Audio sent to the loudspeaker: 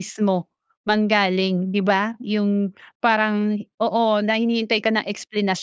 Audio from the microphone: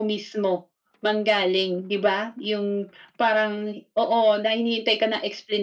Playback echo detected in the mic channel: Yes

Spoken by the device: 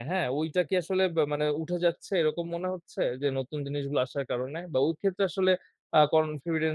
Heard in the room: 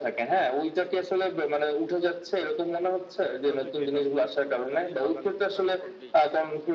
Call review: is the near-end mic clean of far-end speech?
No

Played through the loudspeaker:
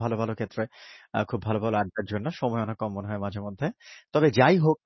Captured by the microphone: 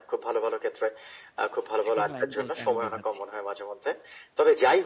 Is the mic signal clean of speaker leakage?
No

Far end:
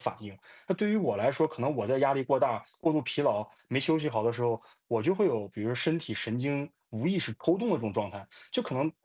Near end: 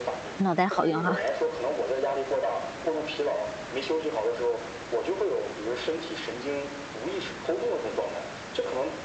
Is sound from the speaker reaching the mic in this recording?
Yes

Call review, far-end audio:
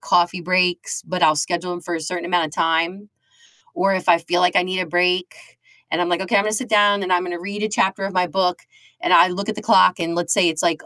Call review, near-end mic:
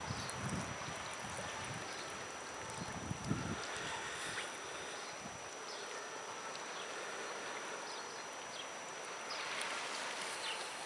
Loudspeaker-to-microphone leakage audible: No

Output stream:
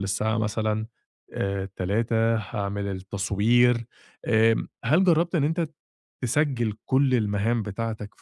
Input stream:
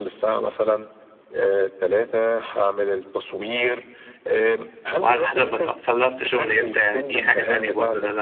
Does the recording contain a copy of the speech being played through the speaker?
Yes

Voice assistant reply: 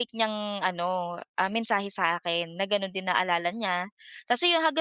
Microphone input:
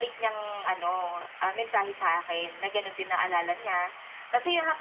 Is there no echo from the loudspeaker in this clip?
No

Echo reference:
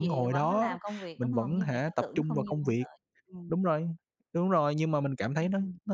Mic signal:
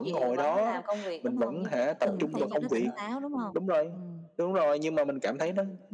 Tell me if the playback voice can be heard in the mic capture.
Yes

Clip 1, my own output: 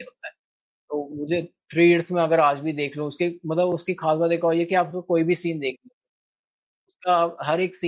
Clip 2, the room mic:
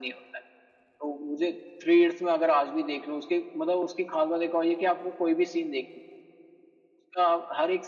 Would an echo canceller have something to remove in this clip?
Yes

